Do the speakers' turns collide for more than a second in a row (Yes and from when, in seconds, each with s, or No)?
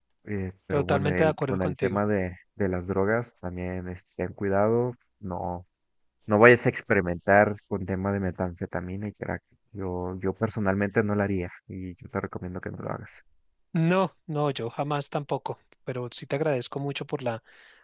Yes, from 0.7 s